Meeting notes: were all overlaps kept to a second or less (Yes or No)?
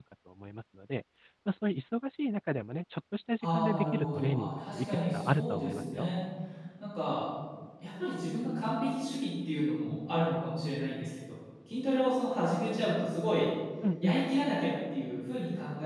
No